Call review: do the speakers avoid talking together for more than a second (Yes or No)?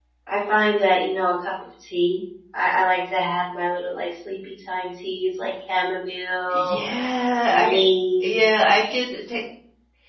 Yes